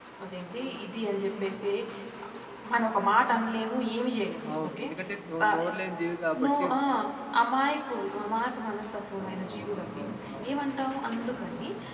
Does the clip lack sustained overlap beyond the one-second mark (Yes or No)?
Yes